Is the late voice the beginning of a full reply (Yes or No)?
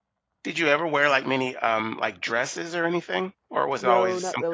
Yes